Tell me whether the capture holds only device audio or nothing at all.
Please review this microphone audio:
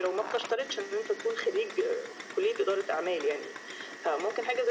Yes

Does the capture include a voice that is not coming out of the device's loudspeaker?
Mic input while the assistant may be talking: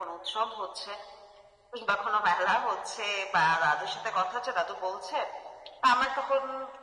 No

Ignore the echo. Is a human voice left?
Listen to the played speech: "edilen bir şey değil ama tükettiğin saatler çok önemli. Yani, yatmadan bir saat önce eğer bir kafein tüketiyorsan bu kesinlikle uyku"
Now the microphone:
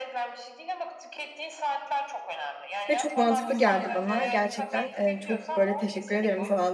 Yes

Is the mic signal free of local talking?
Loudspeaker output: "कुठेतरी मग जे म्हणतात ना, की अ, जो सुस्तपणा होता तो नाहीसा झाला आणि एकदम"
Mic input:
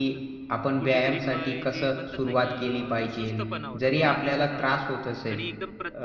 No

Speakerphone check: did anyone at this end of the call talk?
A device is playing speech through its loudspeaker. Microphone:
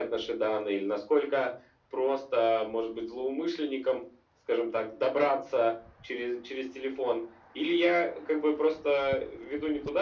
No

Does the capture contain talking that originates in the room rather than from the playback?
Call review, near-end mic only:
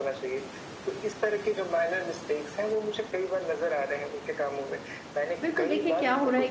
Yes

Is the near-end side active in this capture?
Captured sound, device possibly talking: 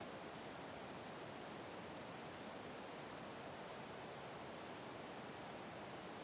No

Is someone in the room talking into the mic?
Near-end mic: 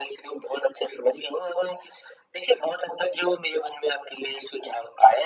No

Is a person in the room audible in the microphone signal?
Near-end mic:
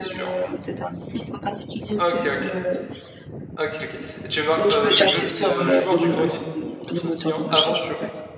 Yes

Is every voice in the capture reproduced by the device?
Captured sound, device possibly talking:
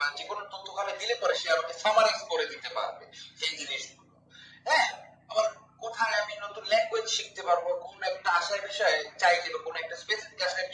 Yes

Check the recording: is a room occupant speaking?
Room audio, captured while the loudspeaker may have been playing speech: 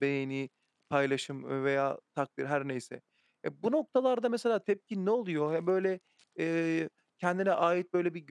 Yes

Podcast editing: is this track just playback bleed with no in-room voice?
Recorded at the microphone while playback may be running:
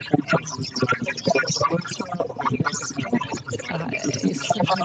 No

